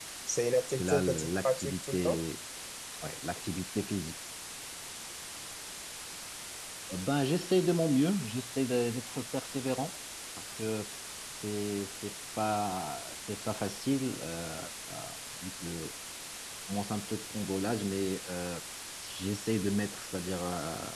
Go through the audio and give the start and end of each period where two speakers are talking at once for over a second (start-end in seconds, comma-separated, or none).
0.8-2.2